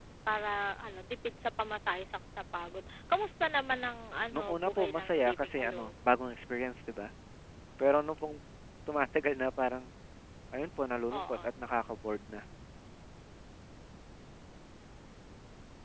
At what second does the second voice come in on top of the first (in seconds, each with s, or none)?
4.3 s